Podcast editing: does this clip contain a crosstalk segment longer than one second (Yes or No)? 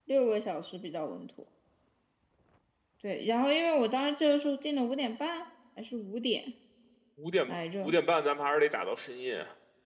No